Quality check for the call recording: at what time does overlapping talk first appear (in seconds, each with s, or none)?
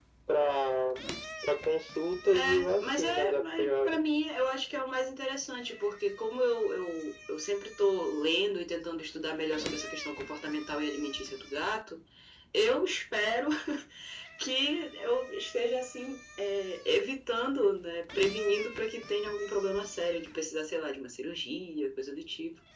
2.3 s